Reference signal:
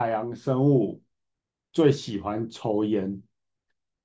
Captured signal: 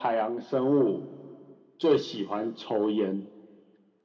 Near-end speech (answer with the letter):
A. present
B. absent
B